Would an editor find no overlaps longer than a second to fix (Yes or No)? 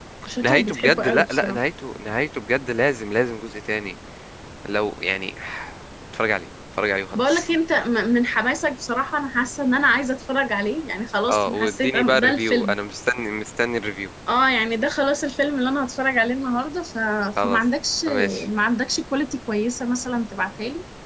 No